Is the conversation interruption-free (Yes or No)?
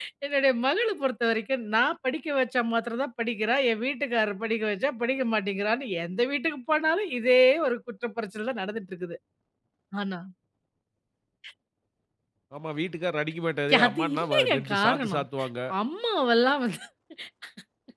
No